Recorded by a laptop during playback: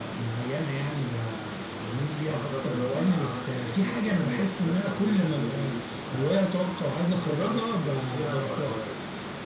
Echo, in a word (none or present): present